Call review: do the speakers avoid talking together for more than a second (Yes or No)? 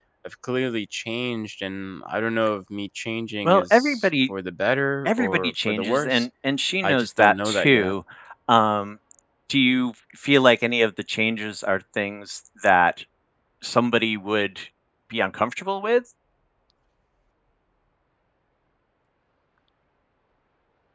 No